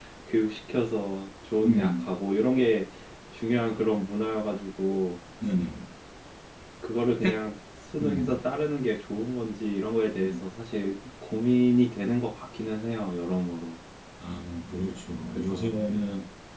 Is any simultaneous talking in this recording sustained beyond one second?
No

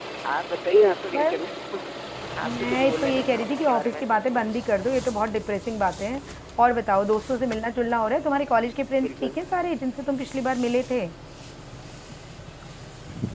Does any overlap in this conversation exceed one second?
Yes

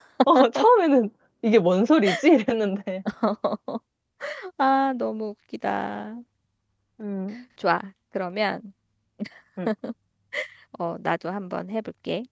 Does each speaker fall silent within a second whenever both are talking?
Yes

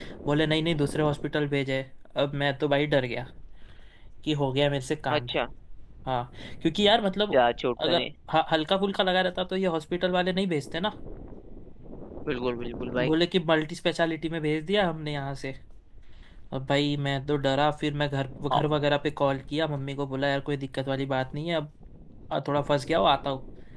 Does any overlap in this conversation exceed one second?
No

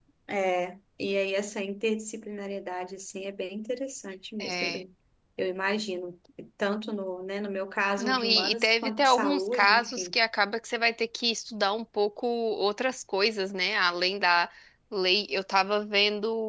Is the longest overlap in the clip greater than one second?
Yes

